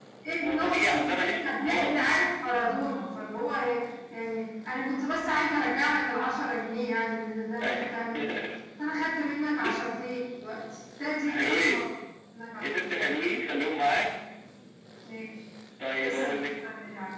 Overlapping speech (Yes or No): Yes